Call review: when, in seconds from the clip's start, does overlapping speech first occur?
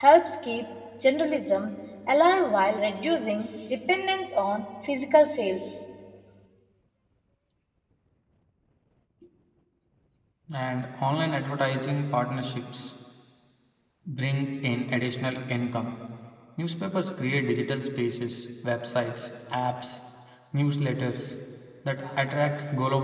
none

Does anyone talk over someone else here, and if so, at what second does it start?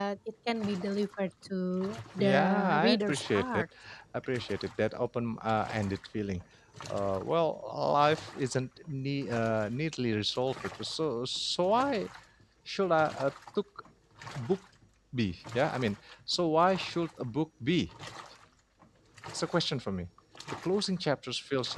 2.2 s

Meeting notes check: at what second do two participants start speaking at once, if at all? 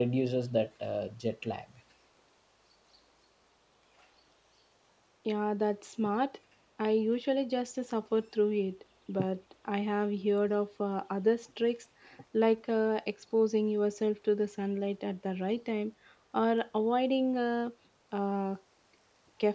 none

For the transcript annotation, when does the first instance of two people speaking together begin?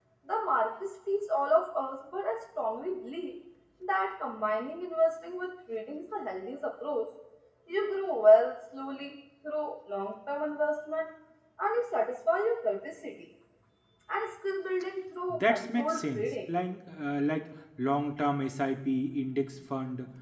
15.3 s

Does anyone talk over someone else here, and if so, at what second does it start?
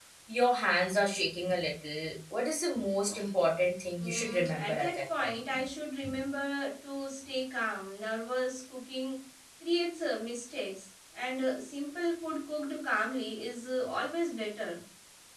4.0 s

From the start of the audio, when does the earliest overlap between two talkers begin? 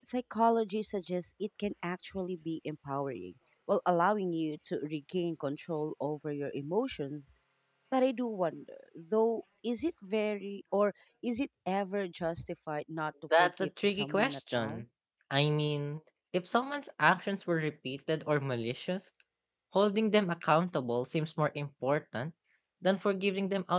13.3 s

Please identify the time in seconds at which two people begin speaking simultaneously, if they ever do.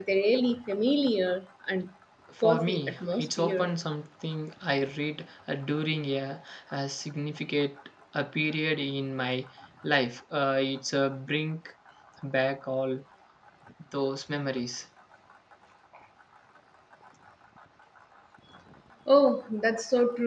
2.4 s

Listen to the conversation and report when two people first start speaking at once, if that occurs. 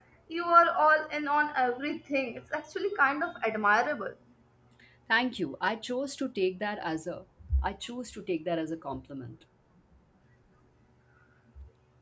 none

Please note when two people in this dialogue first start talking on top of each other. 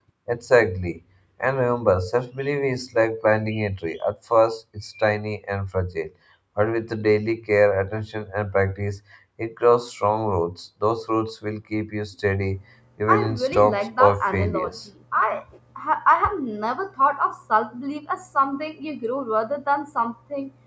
13.1 s

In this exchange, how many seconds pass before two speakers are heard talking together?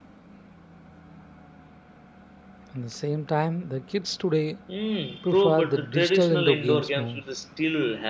5.2 s

